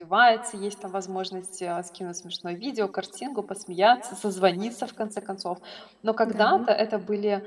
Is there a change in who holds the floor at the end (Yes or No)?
No